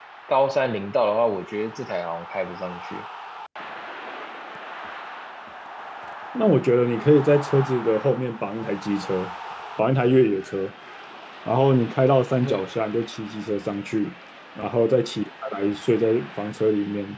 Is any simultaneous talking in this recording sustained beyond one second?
No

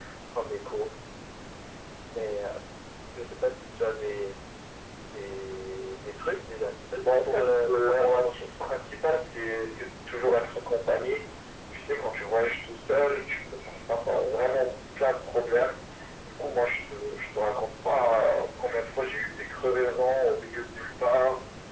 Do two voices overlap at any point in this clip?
Yes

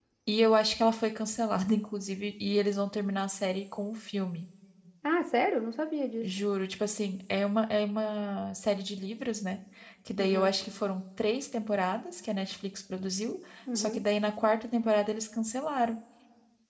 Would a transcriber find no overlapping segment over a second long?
Yes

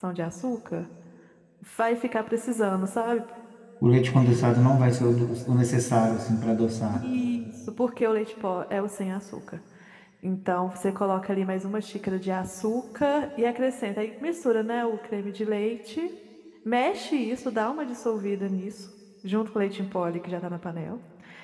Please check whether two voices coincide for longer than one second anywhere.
No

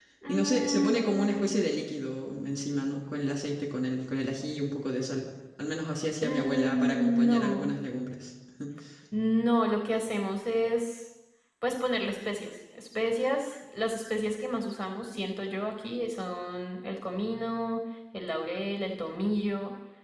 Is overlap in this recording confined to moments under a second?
No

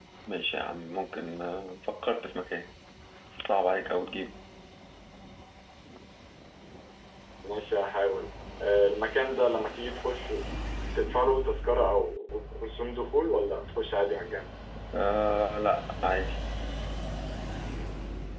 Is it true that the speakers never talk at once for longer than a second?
Yes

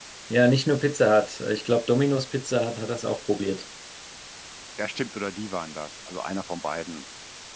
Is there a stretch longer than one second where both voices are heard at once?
No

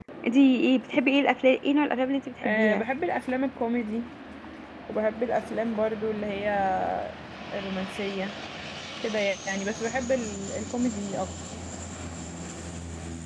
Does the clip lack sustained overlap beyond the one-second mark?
Yes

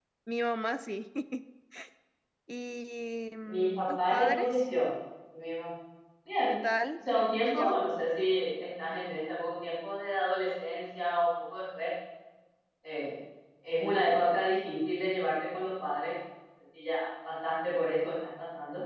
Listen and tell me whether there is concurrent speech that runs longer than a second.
Yes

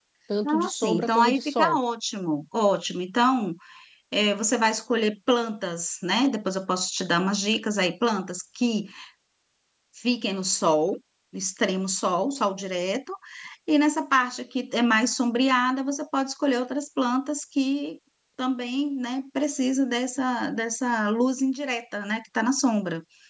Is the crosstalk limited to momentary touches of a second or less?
No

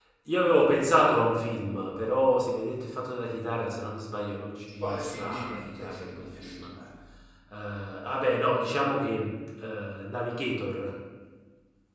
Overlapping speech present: Yes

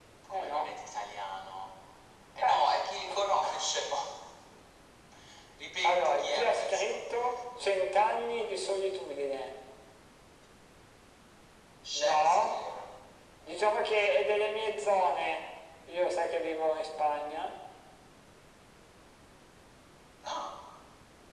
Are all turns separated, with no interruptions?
No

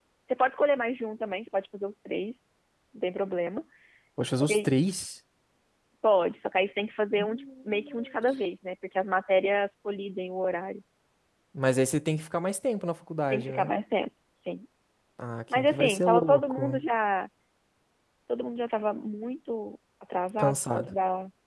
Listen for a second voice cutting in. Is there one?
Yes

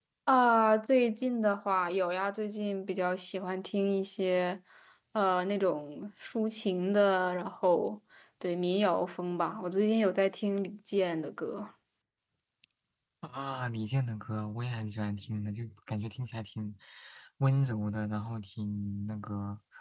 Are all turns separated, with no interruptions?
Yes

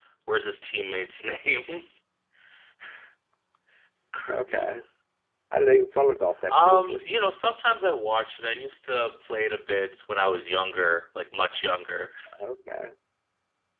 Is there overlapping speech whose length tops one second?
No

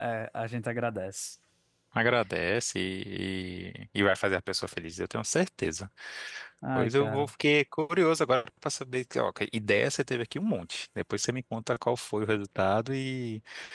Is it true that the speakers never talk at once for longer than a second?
Yes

